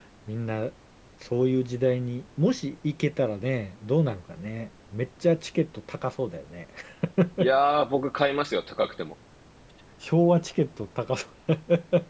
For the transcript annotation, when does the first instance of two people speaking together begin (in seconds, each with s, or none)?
none